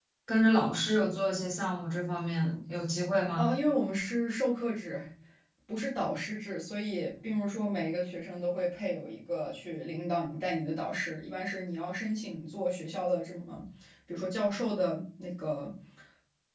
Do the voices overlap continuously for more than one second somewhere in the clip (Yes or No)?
No